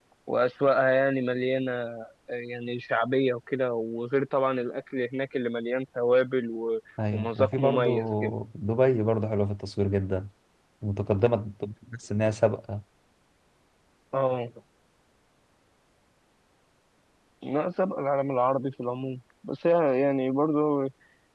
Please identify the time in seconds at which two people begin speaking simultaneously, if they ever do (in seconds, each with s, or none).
7.0 s